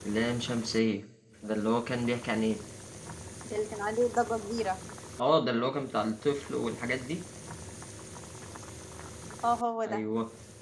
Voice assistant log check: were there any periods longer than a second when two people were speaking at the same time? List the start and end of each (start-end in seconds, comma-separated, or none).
none